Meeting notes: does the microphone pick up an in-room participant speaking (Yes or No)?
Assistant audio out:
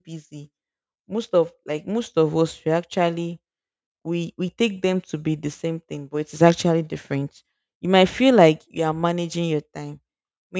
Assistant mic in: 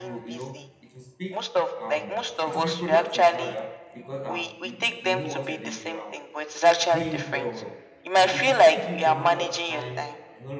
Yes